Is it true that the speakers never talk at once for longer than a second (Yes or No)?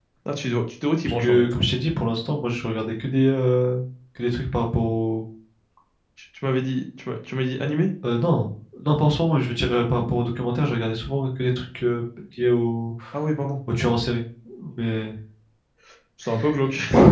Yes